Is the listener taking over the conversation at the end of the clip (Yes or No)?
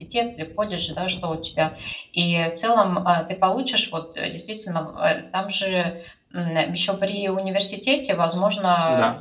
No